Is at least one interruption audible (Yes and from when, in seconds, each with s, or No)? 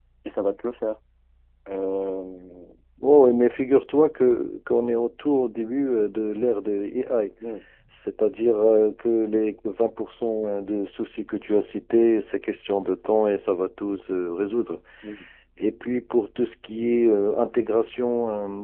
No